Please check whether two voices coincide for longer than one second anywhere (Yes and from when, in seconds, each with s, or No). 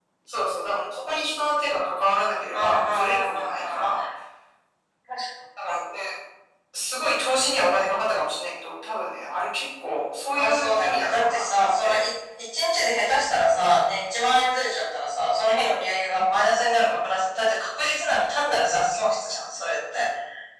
Yes, from 2.5 s